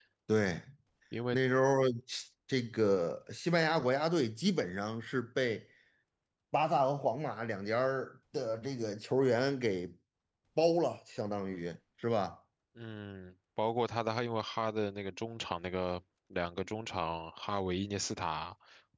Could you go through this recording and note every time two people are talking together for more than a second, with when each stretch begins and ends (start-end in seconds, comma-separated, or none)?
none